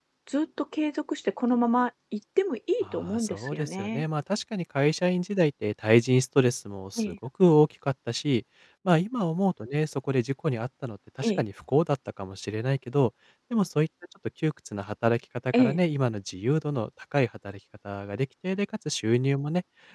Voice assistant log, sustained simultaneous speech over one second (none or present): present